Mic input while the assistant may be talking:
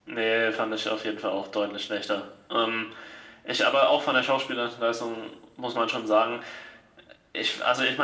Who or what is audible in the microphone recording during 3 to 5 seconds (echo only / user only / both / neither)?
echo only